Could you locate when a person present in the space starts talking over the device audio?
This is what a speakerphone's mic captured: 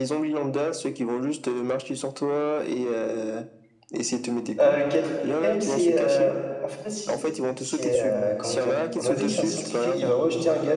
5 s

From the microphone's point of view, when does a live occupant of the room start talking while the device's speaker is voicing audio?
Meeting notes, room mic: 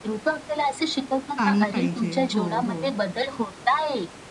1 s

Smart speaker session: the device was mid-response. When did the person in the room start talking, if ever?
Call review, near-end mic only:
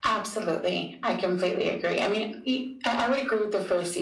none

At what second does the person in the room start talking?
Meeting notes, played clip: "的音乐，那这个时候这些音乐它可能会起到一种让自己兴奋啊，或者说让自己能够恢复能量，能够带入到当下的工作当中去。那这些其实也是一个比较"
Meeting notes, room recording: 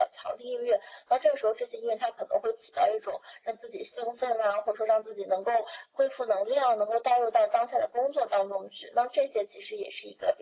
none

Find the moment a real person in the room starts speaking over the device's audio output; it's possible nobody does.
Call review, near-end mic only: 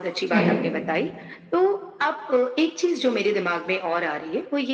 0 s

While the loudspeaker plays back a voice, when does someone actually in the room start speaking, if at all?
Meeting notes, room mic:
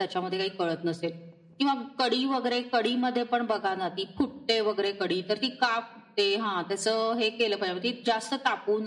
none

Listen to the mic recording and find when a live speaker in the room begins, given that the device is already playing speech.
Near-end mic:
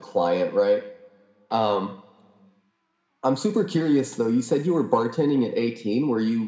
none

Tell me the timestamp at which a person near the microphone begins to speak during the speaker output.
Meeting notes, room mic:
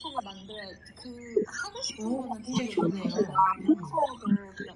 2 s

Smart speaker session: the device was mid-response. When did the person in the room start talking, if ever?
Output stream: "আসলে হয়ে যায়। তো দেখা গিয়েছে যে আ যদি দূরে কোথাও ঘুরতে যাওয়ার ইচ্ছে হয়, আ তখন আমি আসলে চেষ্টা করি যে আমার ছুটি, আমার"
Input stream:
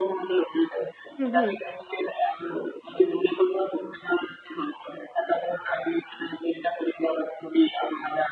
1 s

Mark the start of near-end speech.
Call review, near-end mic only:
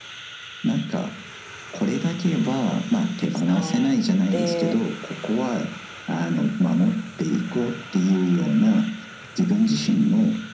3 s

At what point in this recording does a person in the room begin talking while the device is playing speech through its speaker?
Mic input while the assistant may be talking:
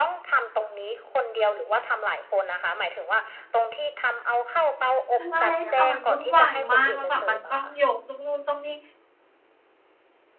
5 s

